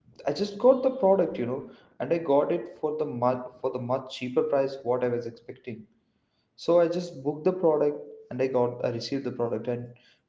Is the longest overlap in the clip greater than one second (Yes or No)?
No